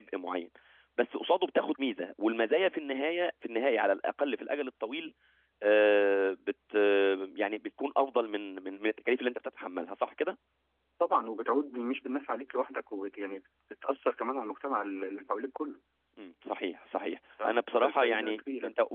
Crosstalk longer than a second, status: present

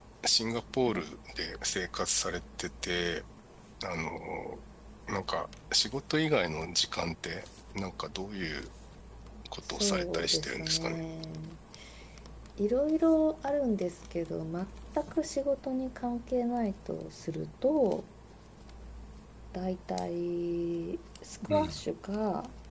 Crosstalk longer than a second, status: present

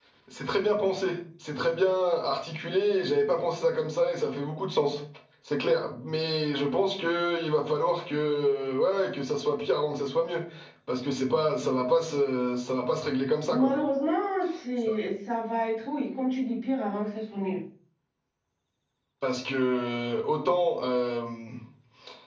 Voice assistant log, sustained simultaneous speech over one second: none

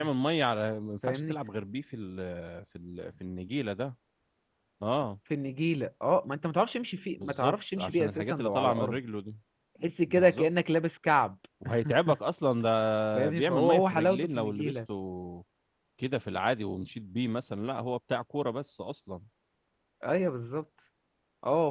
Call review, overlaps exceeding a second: present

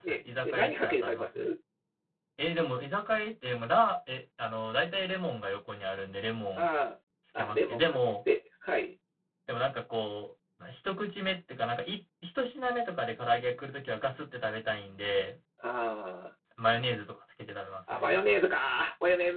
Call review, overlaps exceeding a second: present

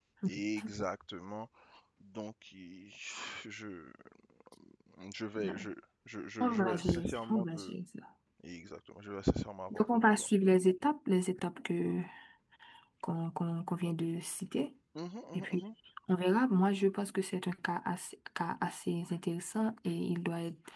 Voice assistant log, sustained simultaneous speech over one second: present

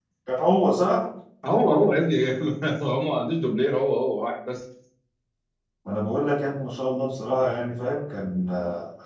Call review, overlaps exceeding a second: none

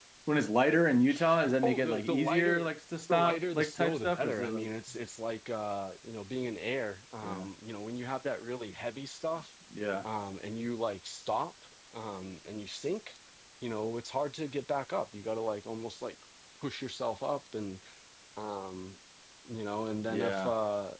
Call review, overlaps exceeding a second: present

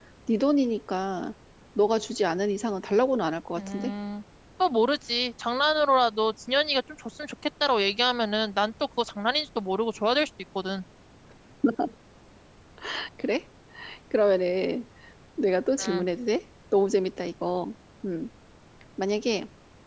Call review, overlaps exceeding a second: none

